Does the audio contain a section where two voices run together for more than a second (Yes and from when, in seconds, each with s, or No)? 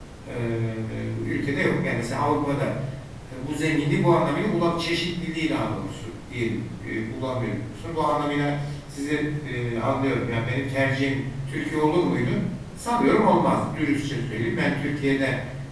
No